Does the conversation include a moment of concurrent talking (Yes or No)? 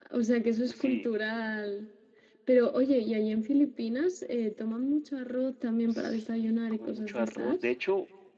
Yes